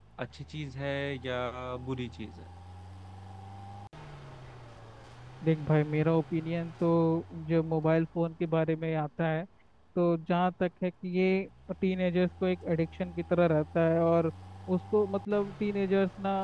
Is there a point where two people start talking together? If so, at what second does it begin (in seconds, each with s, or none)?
none